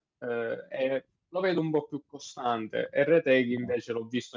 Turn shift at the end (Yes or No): No